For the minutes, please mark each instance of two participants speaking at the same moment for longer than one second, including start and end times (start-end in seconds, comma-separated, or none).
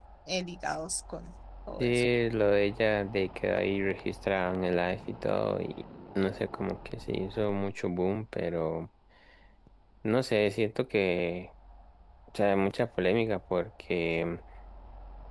none